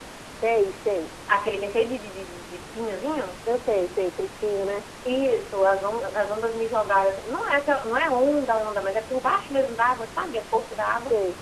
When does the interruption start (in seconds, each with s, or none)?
none